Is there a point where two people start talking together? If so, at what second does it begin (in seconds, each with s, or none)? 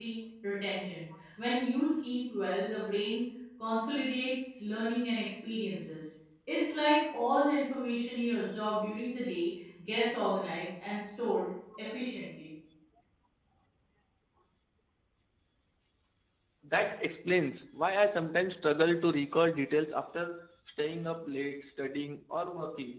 none